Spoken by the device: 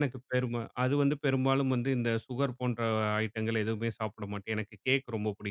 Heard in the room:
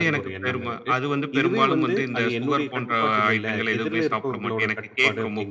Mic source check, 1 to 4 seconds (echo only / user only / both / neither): both